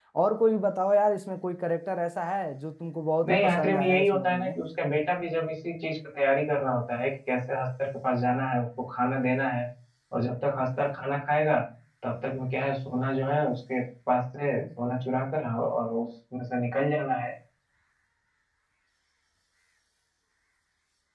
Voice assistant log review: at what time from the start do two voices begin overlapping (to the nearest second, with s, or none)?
3 s